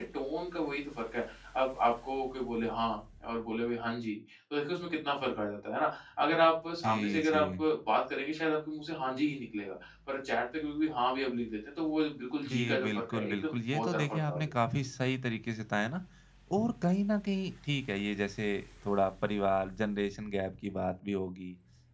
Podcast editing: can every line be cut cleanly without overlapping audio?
No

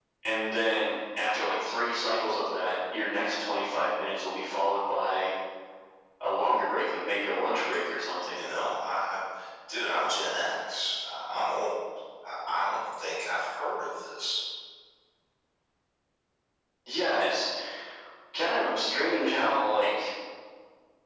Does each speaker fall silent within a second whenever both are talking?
Yes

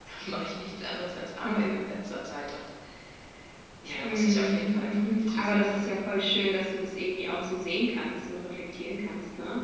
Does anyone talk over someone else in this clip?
Yes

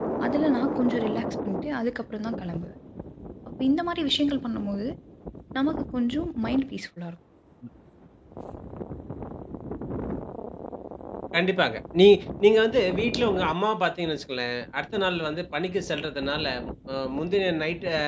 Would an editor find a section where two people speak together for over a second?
No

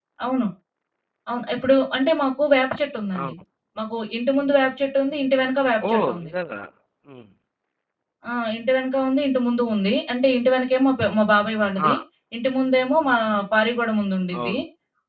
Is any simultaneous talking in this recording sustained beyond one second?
No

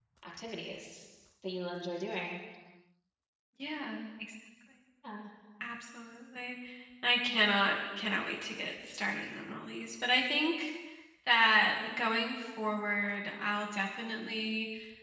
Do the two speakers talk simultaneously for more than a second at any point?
No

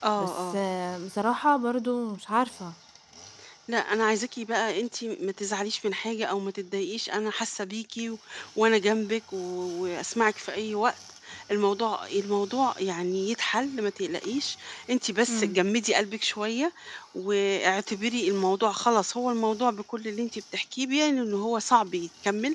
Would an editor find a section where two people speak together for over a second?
No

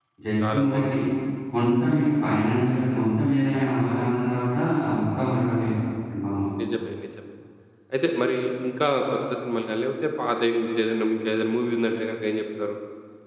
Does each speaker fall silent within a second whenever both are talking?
Yes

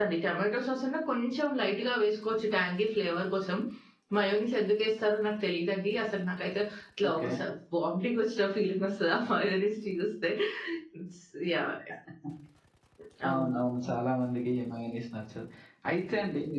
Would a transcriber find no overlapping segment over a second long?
Yes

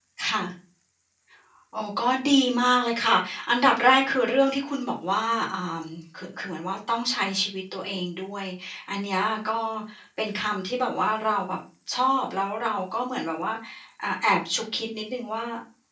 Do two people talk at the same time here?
No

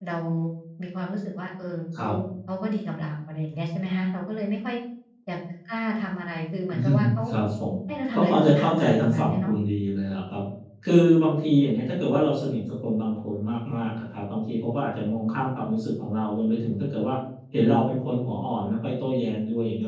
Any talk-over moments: Yes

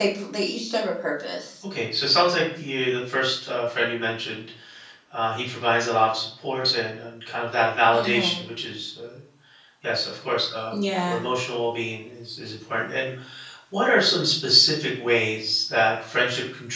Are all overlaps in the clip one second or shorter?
Yes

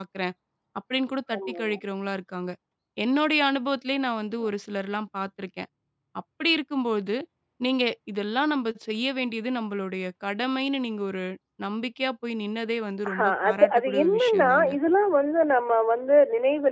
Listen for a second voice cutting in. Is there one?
Yes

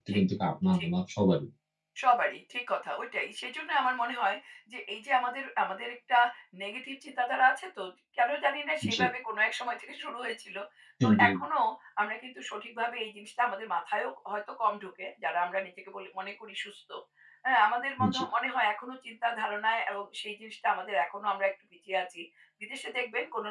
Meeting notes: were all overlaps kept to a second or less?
Yes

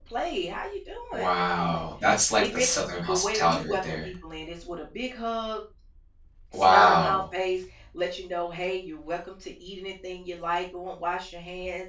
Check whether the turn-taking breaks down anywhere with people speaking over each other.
Yes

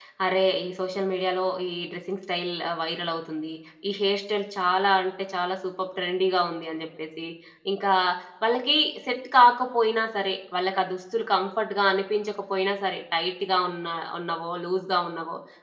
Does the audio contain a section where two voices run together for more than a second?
No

